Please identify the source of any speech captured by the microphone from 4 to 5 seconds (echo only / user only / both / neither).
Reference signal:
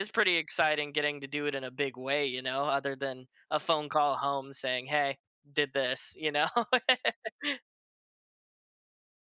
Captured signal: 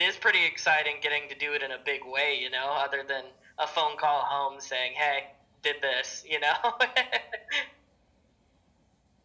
echo only